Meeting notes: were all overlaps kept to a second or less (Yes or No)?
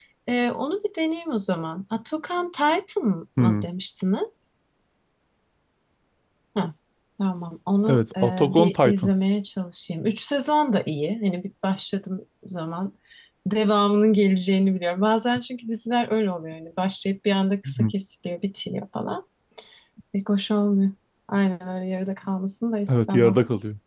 No